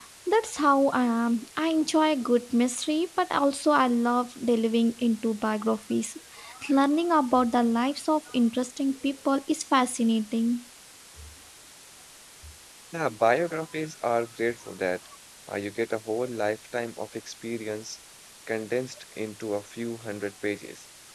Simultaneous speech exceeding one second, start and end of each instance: none

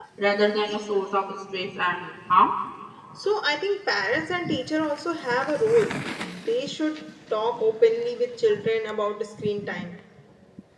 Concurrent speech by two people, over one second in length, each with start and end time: none

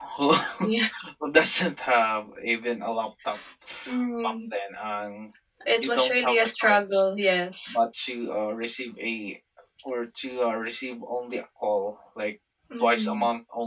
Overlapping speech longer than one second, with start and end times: 5.8-7.0

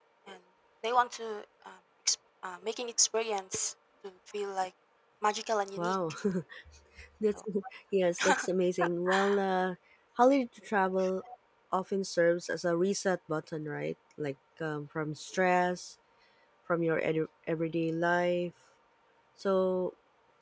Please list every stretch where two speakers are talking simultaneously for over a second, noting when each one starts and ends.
none

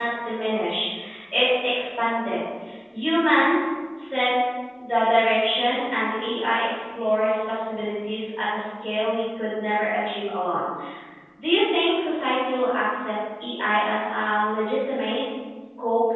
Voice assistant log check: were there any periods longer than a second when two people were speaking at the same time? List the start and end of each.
none

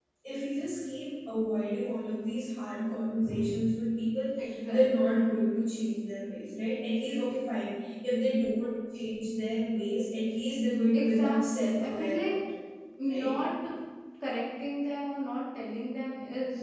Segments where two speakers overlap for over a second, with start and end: 10.9-12.3

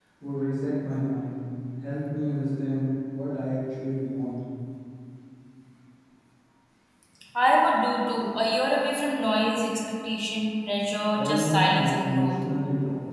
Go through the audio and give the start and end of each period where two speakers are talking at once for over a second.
11.1-12.3

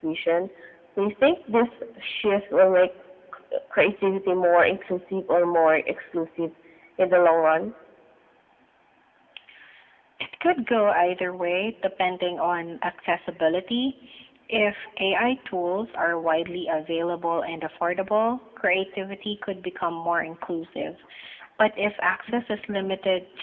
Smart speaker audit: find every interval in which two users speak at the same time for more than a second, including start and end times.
none

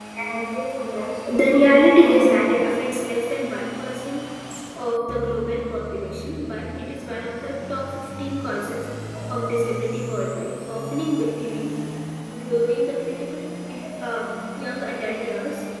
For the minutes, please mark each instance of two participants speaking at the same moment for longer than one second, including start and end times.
1.4-2.7

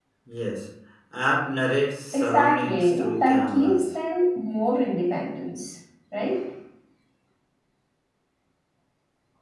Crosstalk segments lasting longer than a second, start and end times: 2.1-3.8

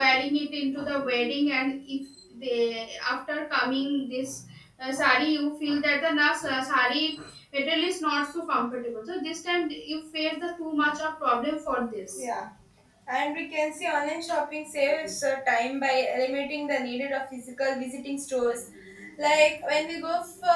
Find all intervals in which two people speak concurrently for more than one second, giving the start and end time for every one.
none

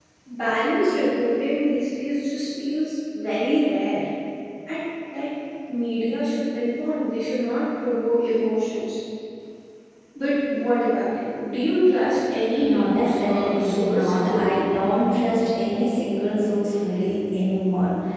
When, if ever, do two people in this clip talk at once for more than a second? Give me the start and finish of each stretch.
12.6-14.7

